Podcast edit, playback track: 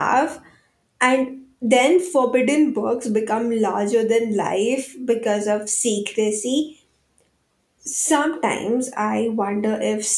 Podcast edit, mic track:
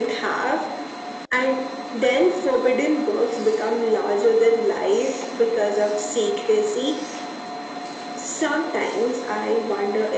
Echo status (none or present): present